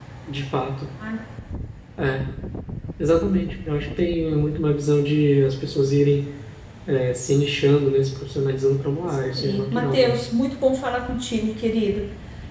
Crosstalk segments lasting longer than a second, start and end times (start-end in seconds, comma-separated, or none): 8.8-10.3